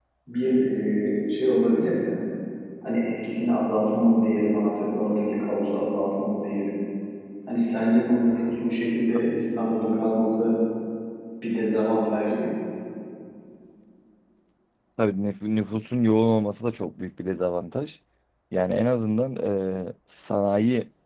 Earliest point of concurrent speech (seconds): none

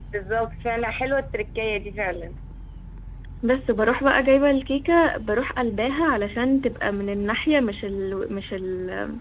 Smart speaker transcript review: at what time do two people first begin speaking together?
none

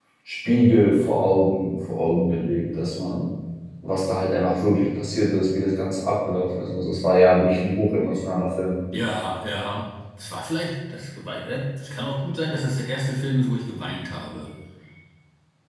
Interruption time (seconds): none

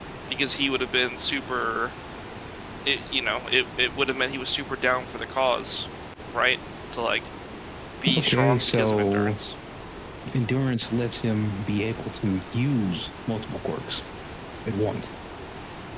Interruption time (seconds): 8.2 s

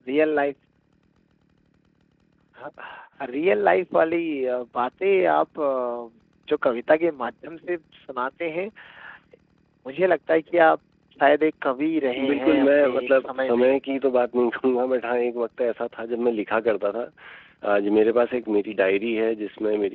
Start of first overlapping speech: 12.2 s

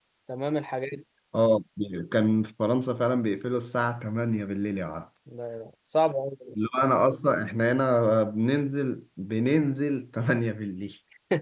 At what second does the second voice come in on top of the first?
none

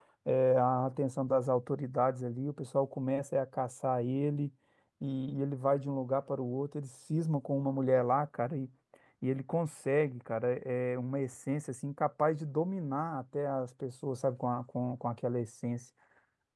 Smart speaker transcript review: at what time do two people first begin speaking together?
none

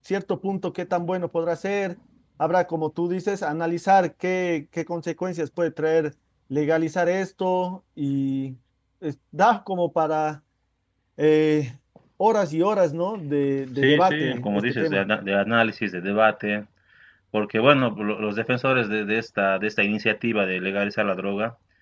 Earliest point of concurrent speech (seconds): 13.8 s

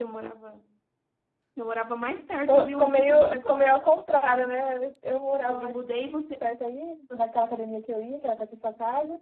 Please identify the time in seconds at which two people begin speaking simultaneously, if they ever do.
2.5 s

